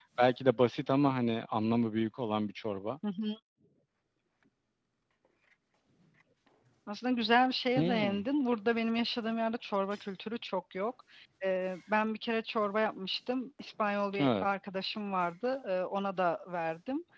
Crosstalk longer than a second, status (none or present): none